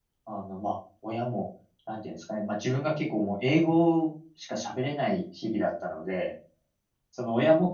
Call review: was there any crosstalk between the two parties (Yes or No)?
No